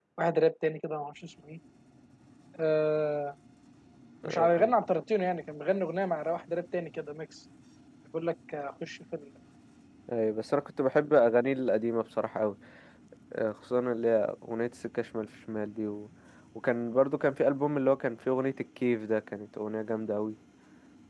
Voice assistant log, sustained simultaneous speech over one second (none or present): none